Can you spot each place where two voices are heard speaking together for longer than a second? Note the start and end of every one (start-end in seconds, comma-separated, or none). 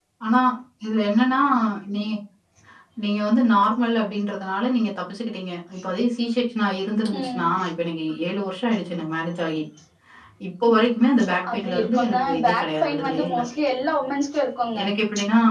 11.5-13.4